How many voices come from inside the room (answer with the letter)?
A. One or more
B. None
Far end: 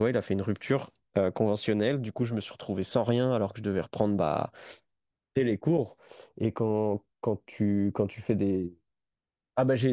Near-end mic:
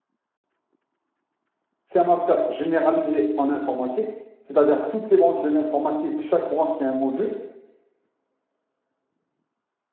A